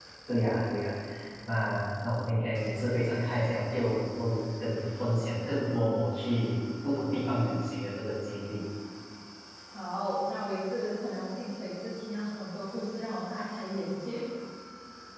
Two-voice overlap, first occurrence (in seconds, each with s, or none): none